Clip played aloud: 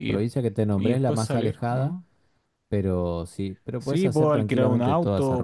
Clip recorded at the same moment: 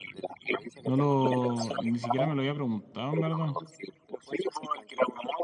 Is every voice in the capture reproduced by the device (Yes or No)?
No